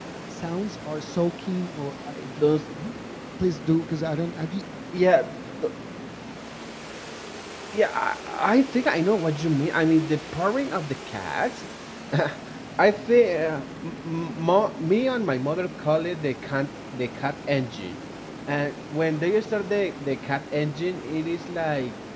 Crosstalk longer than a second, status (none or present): none